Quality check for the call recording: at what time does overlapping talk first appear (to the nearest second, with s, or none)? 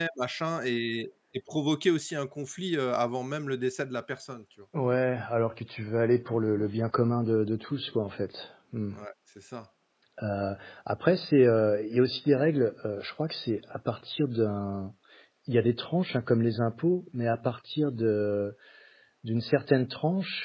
none